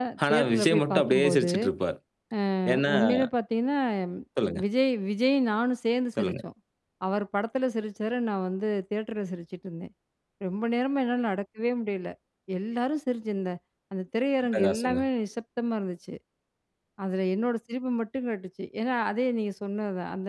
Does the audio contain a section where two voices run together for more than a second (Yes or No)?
Yes